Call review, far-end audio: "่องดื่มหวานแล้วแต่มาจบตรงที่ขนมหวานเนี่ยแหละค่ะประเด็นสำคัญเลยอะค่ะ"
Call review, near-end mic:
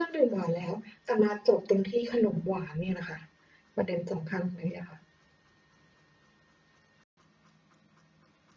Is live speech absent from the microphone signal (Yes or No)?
Yes